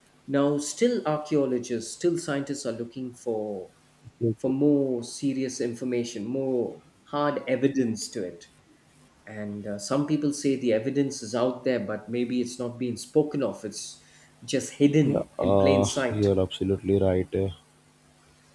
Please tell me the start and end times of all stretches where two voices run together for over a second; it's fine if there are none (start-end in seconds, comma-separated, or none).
15.0-16.3